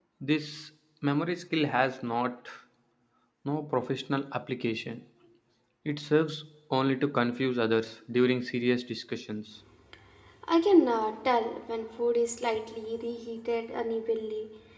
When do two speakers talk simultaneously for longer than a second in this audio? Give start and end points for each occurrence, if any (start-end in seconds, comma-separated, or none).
none